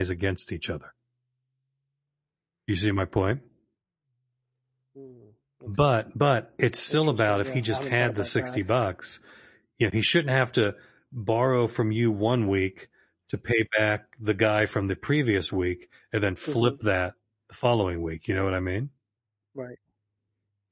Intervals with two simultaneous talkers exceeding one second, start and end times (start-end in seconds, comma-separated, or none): 6.9-8.6